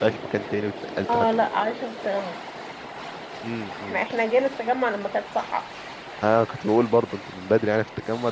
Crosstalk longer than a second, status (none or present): none